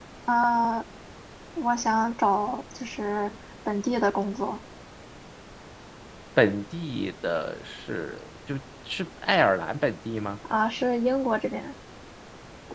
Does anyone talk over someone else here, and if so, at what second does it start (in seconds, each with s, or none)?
none